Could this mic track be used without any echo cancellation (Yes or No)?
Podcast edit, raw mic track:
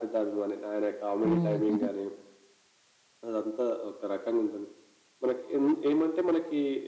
No